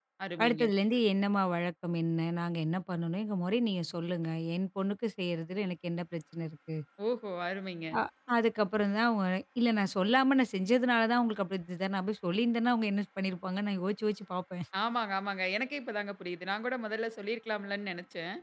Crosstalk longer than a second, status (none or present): none